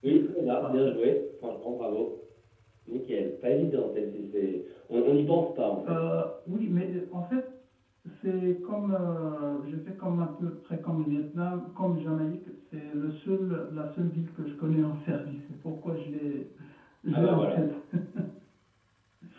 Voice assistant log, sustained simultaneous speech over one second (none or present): none